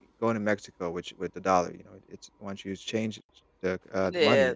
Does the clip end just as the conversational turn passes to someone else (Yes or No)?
Yes